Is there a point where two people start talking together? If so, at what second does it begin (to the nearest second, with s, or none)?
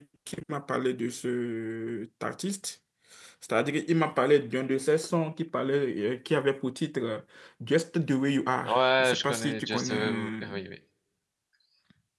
9 s